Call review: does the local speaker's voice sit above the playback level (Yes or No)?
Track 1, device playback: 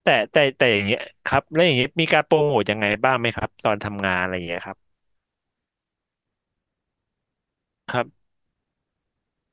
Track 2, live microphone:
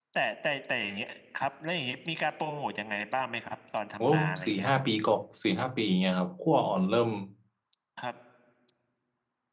Yes